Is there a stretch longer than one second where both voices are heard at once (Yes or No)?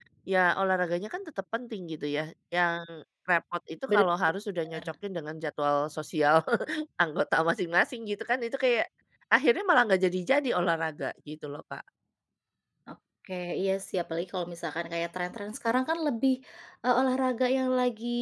No